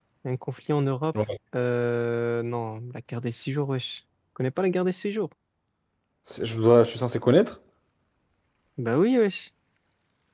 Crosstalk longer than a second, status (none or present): none